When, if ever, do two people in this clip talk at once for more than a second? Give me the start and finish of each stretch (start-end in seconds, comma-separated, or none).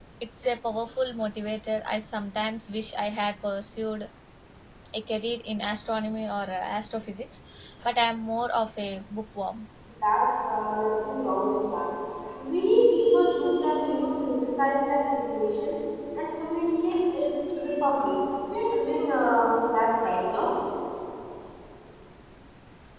none